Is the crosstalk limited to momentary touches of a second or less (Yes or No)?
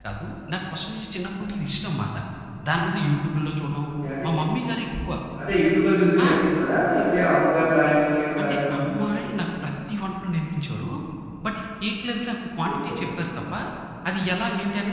Yes